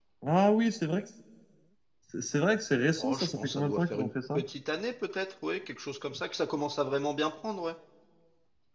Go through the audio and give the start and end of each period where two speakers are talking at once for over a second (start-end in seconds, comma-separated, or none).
3.0-4.4